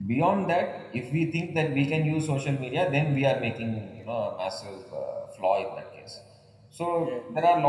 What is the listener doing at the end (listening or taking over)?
listening